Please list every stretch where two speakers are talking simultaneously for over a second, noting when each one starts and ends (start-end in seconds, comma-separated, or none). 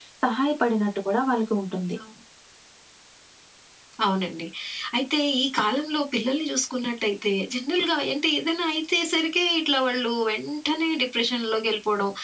none